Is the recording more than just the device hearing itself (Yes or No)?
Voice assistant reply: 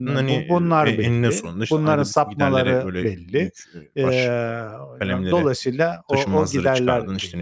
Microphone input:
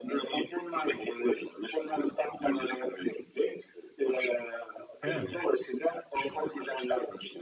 Yes